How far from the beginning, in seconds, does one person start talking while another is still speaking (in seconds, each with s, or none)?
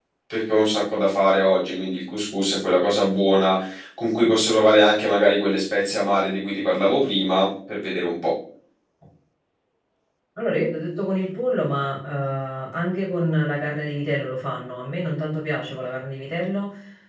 none